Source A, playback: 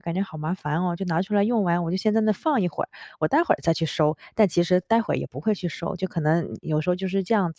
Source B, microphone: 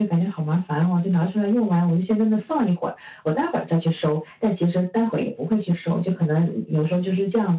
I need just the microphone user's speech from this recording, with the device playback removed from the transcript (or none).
none